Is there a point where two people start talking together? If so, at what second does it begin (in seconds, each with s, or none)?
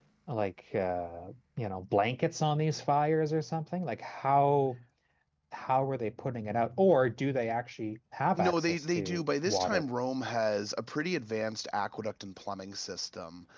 8.4 s